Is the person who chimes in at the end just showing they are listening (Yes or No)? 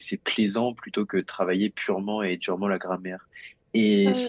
Yes